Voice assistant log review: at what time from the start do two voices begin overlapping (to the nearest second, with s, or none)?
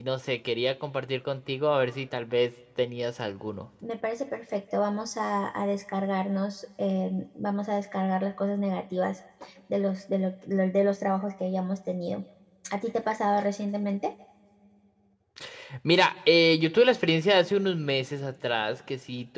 none